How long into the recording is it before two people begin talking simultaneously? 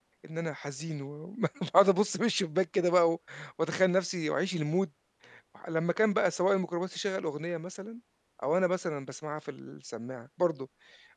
none

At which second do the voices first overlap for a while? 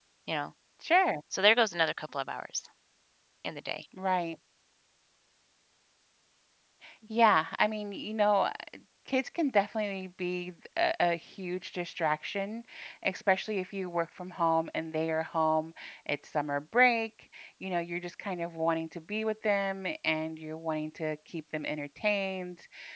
none

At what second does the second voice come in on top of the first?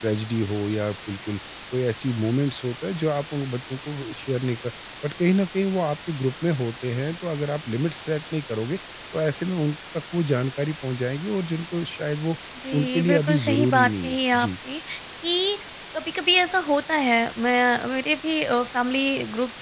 13 s

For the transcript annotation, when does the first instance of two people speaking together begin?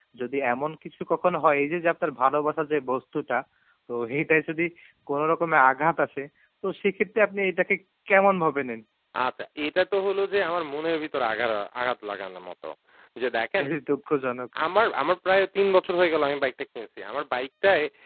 none

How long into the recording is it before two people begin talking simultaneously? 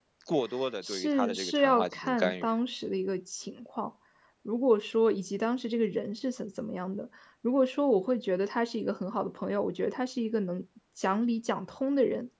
1 s

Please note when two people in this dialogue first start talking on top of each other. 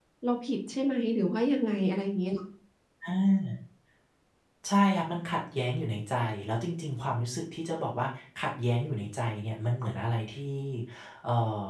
none

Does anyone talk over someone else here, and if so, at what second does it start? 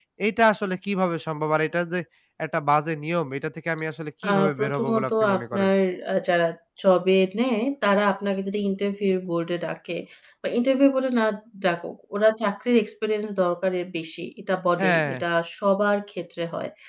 4 s

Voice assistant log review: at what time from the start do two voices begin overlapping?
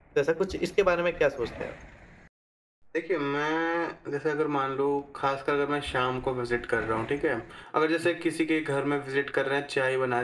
none

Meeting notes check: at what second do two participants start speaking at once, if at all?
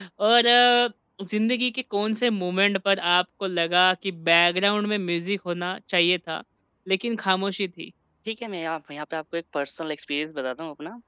none

